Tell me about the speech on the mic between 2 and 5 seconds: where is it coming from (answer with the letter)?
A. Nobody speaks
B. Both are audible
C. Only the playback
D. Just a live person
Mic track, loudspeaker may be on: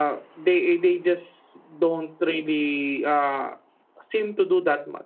D